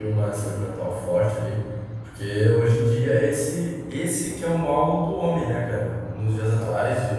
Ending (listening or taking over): listening